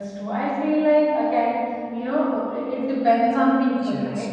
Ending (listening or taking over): taking over